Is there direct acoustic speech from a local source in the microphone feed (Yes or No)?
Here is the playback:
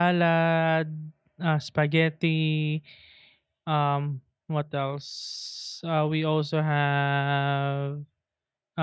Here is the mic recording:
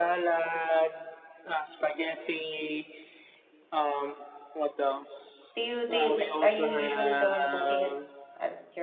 Yes